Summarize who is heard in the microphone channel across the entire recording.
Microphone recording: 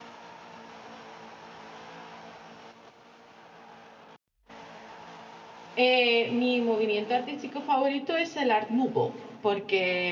user only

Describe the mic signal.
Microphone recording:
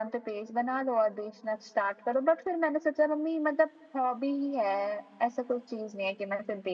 echo only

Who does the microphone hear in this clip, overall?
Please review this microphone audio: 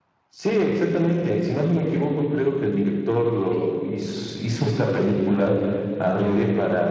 both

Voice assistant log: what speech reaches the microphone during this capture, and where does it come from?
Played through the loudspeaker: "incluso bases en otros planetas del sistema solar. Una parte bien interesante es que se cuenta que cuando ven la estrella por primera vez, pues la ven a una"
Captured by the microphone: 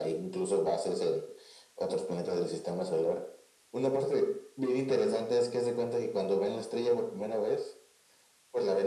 echo only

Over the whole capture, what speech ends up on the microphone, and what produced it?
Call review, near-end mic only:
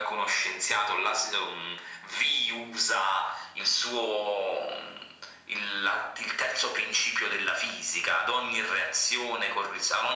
echo only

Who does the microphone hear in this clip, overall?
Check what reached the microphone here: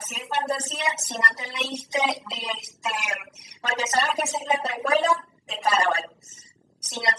echo only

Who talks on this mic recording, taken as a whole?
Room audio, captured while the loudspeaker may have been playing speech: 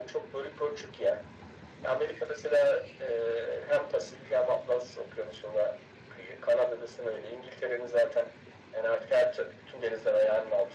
echo only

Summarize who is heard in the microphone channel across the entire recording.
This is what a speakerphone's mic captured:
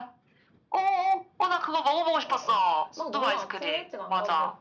both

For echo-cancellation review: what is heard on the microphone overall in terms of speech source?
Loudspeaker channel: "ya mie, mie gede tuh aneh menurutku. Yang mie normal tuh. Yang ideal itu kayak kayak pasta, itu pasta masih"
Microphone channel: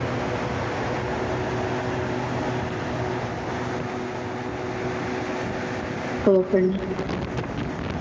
user only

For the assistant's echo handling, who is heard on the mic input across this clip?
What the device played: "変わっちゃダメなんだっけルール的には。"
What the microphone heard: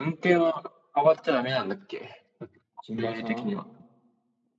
both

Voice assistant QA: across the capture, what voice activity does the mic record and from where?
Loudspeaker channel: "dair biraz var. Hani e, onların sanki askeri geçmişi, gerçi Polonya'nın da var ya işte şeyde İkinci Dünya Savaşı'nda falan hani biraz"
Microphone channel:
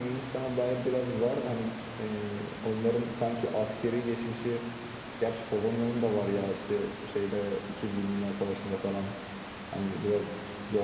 echo only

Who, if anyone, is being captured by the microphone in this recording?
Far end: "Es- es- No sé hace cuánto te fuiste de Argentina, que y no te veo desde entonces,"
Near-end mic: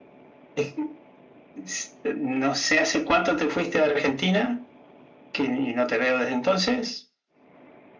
echo only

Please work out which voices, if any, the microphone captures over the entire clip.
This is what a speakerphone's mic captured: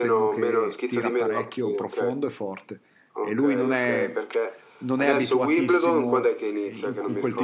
both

